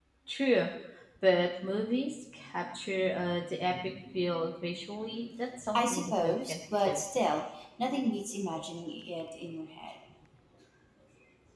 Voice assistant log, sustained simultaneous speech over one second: present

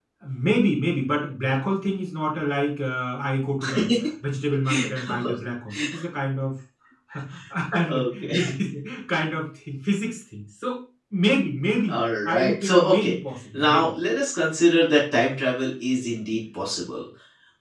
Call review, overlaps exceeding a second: present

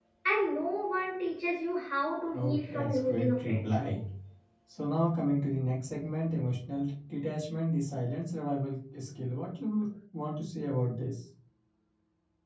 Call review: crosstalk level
present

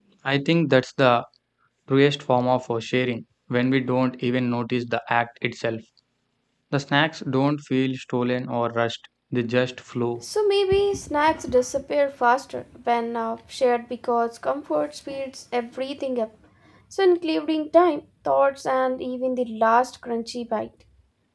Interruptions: none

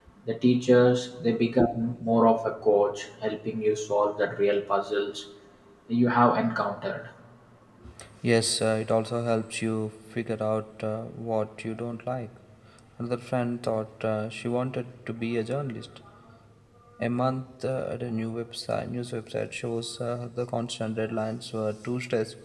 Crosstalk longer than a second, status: none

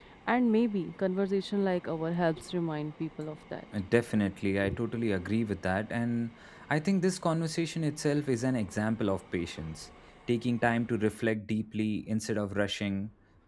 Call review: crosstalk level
none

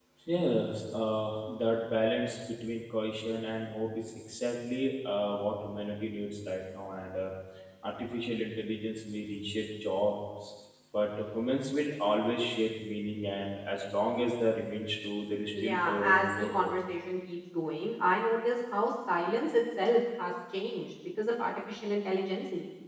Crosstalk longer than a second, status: present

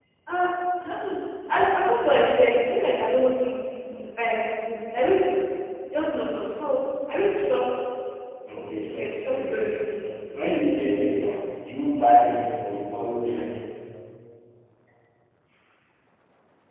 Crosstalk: present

